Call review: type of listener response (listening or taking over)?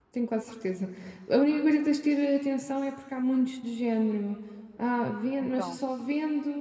listening